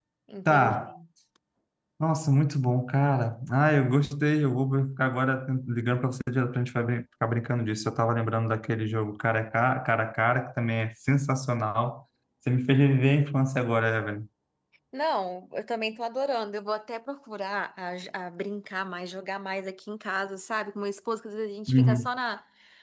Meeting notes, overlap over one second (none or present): none